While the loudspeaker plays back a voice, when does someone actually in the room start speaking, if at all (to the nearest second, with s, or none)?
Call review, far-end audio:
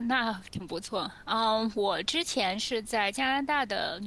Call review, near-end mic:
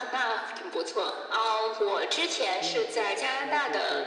2 s